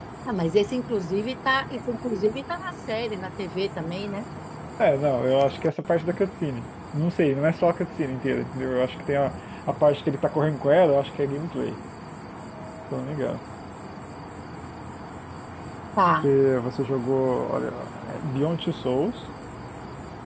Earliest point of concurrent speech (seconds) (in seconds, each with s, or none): none